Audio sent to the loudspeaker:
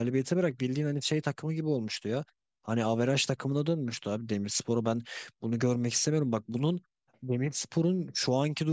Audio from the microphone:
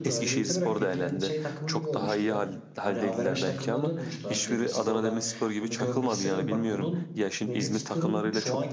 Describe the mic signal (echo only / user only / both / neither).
both